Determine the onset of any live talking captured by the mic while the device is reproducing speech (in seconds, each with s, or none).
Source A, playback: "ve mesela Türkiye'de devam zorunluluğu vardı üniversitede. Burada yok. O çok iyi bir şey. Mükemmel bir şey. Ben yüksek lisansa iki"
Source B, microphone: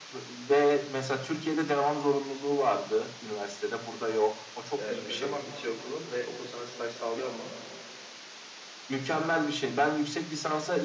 4.8 s